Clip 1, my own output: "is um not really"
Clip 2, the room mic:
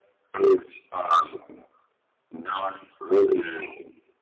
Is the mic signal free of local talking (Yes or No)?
Yes